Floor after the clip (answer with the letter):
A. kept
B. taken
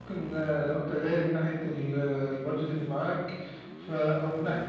A